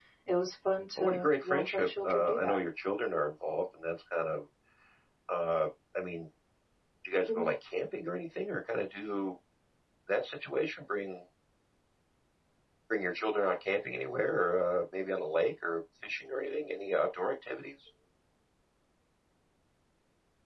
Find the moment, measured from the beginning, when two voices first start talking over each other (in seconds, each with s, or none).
1.0 s